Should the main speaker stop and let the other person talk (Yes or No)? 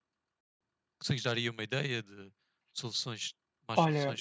Yes